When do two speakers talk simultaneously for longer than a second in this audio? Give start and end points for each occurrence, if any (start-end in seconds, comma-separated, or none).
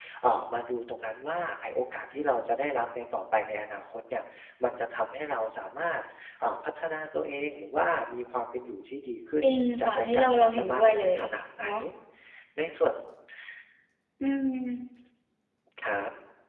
9.8-11.2